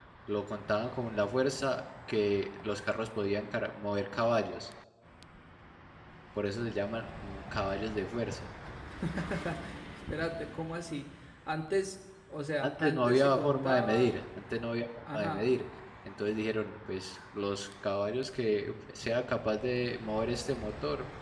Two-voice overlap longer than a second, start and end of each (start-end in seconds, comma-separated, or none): 12.6-14.1